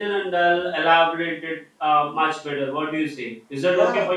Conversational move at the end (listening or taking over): taking over